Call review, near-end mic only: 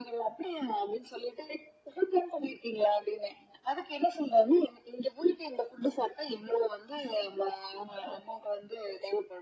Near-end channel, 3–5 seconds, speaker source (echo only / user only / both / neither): echo only